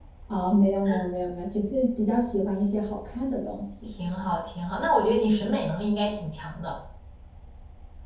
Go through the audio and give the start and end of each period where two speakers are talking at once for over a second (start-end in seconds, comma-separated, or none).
none